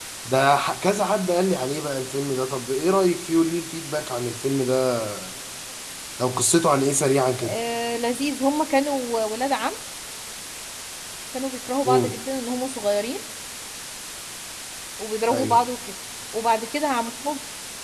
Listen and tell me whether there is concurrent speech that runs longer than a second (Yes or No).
No